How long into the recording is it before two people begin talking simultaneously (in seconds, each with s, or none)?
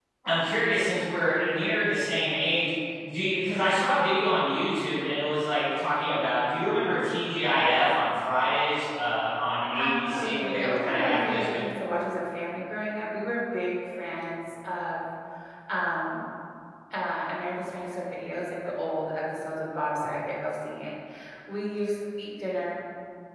9.8 s